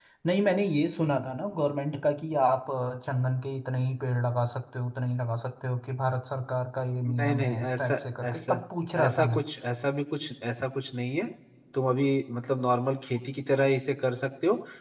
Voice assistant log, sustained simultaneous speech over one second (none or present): present